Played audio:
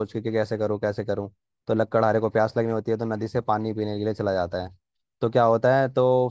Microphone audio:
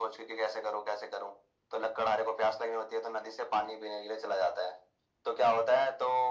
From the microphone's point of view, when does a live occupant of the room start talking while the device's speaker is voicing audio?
none

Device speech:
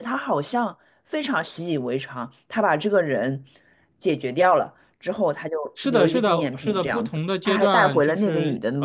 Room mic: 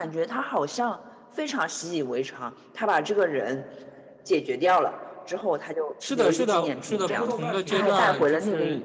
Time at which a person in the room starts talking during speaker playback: 7 s

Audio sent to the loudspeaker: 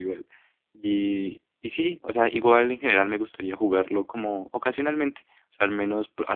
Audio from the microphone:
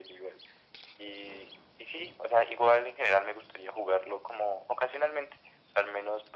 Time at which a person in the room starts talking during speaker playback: none

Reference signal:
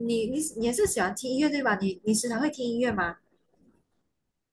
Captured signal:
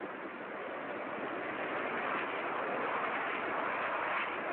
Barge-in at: none

